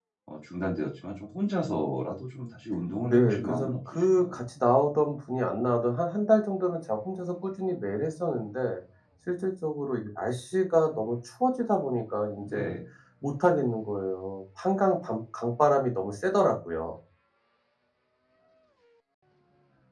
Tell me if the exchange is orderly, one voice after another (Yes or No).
No